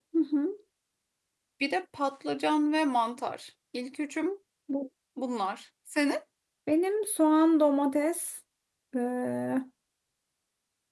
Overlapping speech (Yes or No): No